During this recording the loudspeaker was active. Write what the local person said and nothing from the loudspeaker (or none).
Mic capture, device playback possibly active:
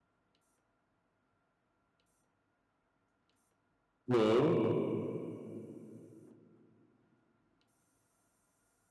হুম।